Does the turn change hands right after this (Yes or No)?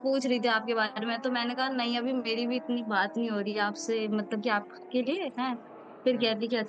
No